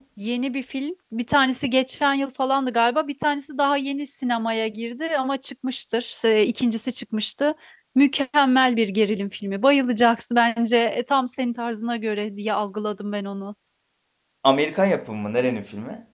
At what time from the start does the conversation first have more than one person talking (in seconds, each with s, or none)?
none